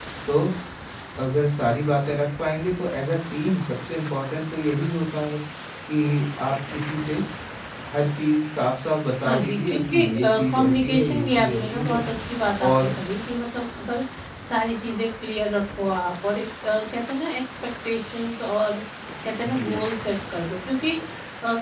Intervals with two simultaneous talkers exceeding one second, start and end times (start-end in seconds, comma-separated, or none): 9.2-12.0